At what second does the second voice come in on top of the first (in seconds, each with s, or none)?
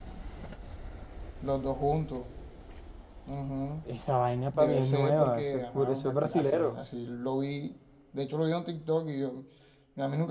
4.6 s